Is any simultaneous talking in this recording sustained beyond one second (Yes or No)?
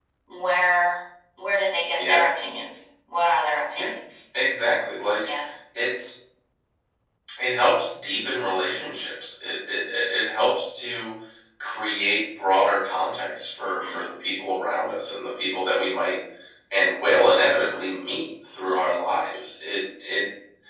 No